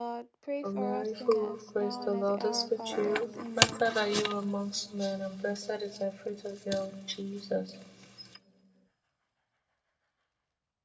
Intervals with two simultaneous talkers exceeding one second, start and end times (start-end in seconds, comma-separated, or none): 0.6-3.9